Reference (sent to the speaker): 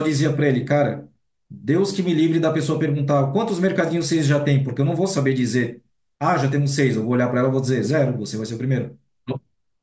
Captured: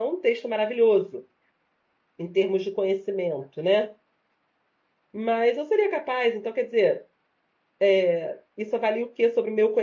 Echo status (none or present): none